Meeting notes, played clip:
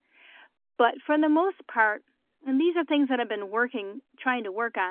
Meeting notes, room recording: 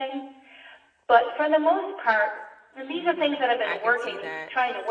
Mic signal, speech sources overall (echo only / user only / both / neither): both